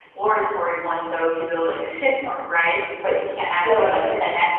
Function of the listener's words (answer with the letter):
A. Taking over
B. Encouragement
A